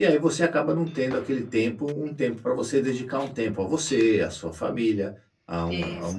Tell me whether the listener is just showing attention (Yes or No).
Yes